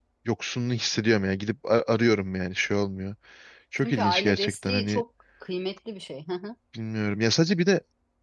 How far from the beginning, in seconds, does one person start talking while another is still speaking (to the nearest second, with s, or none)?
4 s